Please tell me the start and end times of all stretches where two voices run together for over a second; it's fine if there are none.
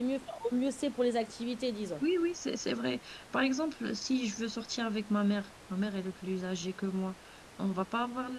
none

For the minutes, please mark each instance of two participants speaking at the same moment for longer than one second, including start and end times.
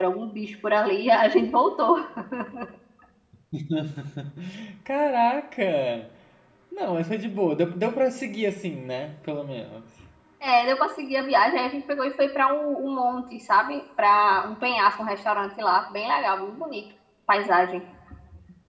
none

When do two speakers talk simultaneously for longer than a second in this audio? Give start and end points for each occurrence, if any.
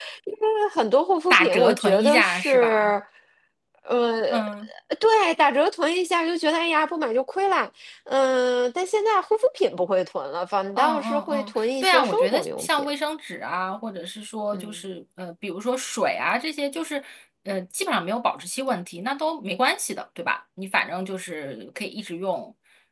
1.3-2.9, 10.8-12.9

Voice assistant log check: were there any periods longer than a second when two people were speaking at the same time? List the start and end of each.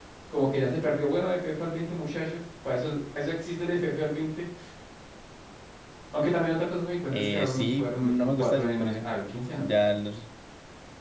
7.1-9.0

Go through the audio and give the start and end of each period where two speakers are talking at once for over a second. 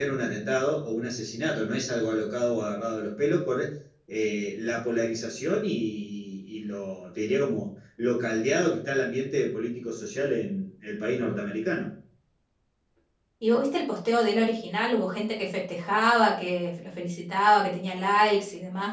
none

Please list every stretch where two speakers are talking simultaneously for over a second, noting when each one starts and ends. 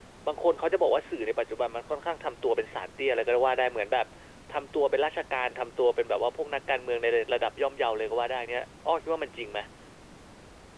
none

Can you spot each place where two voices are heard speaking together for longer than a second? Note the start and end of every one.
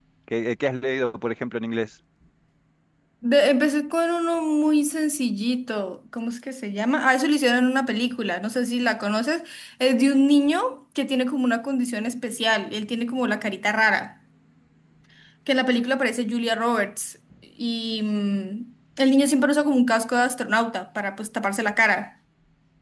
none

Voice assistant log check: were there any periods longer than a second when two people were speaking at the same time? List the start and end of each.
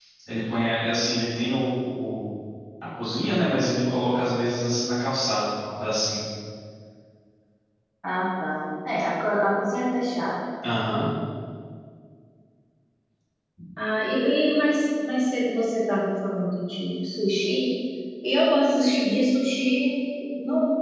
none

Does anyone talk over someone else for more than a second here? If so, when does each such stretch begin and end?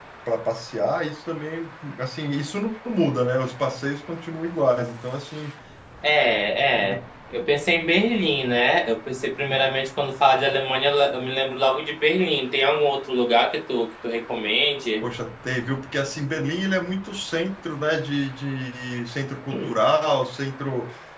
none

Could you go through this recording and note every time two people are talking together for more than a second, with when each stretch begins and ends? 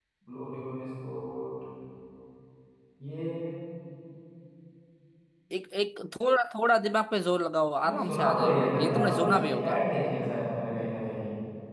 7.8-9.7

